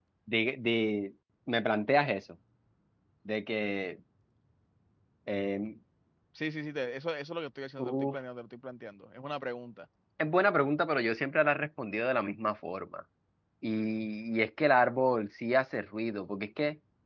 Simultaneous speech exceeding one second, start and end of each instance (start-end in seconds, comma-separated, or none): none